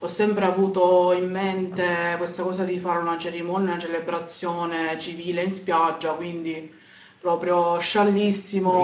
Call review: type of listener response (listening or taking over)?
taking over